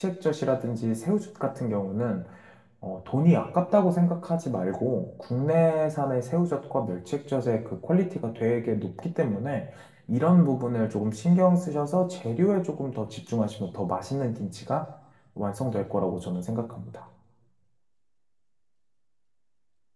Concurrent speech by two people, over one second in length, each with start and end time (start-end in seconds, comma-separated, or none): none